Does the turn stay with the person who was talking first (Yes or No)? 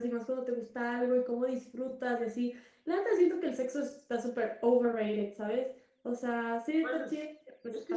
No